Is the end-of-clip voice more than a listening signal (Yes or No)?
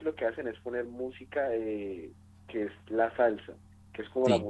No